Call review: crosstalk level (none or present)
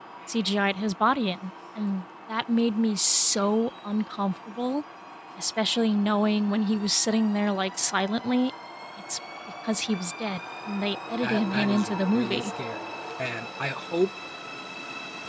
present